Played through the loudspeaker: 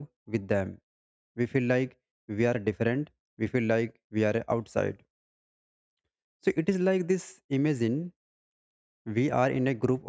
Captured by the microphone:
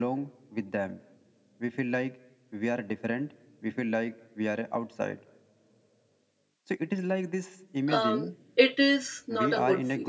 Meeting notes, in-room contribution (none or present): present